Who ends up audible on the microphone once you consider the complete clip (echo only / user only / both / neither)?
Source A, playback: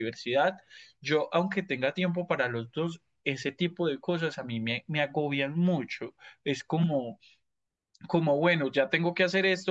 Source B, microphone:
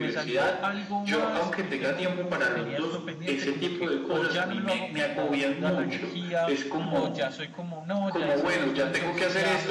both